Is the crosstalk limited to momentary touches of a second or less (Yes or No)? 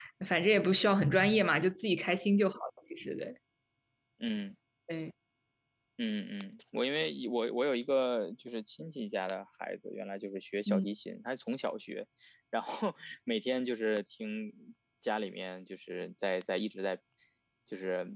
Yes